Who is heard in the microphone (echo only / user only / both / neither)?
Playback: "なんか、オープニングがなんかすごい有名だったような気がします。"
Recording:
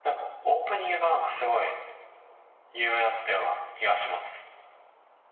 echo only